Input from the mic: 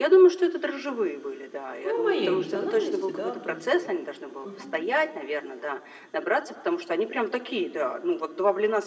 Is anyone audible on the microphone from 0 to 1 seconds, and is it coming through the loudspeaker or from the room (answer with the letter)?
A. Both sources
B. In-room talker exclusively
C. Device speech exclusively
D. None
C